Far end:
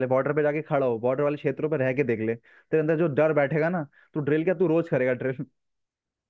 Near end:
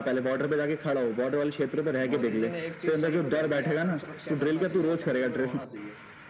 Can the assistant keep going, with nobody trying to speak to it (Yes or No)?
No